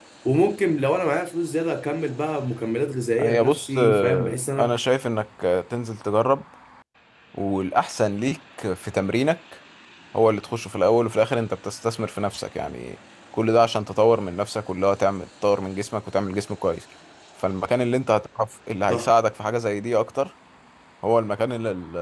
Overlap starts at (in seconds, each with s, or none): 3.2 s